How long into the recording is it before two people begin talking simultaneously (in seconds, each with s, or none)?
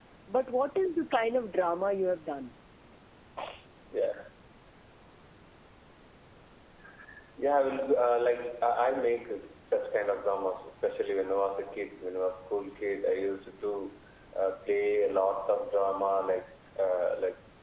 none